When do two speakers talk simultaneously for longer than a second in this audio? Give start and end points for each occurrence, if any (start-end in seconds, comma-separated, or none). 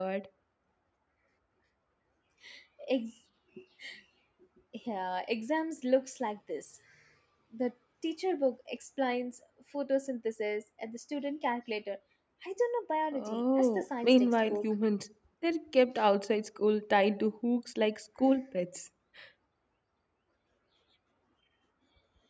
13.1-14.7